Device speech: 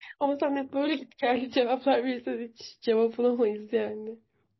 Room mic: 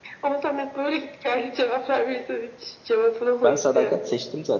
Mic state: both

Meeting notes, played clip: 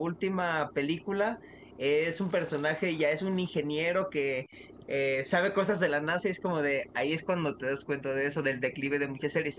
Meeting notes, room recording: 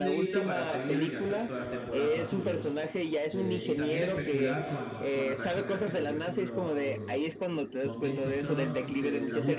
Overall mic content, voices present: both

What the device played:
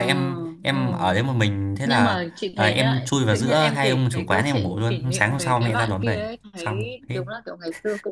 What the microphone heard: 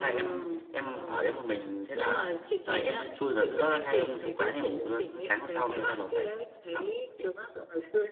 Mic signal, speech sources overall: echo only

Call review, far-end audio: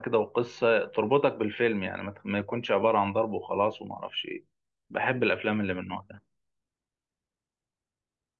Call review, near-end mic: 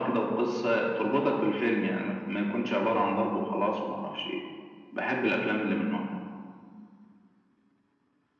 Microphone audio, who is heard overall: echo only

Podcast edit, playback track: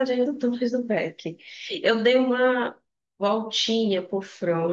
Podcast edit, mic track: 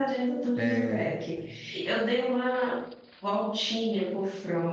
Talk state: both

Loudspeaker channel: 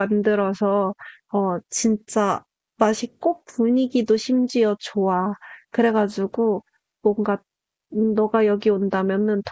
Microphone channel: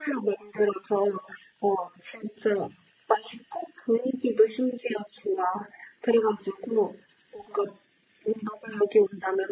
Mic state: echo only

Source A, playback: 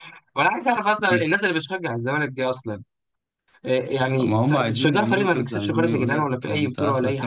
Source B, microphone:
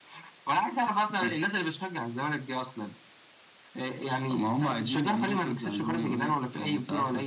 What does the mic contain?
echo only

